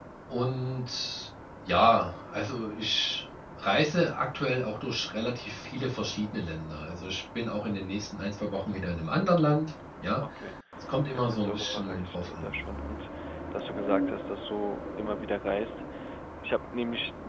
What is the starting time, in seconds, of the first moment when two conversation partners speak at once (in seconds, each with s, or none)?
11.1 s